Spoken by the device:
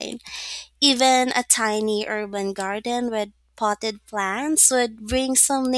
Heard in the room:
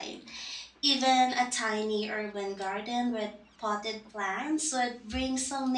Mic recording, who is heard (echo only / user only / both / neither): echo only